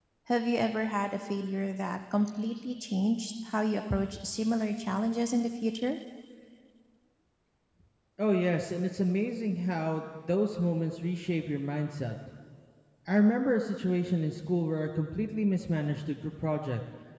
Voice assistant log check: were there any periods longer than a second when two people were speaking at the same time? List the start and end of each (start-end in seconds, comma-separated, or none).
none